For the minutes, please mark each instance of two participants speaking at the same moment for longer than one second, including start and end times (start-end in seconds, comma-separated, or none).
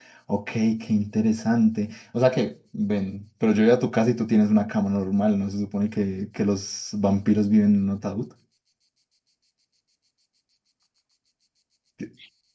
none